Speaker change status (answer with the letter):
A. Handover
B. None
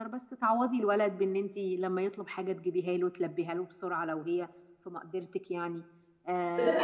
A